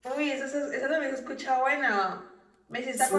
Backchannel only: Yes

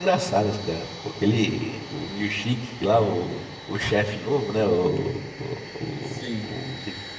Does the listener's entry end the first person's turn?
No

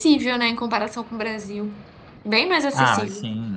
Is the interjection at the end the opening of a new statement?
Yes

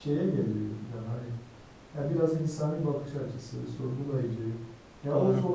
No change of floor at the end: Yes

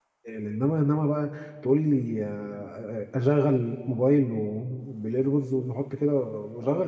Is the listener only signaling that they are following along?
No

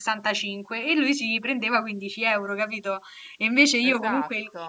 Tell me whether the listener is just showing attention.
Yes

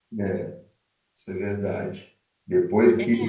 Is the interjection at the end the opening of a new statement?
No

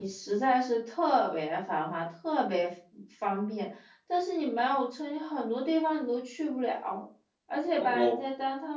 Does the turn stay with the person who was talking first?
Yes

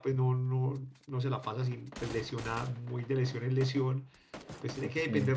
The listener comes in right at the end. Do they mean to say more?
No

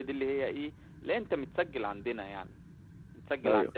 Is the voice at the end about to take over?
No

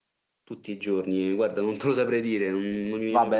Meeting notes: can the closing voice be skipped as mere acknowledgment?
No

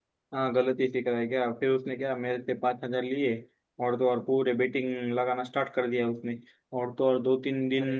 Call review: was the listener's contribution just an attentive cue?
Yes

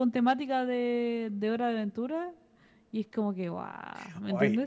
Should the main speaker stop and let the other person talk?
Yes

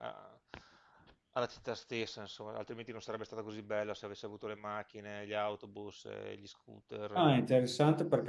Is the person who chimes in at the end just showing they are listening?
No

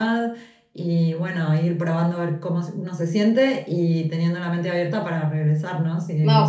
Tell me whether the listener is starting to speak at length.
Yes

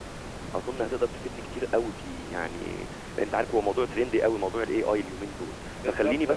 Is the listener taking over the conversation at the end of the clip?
No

